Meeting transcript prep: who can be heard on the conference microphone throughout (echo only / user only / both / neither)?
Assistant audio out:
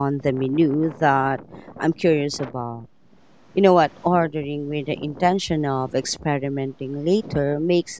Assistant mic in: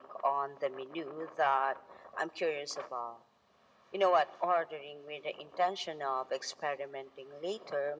echo only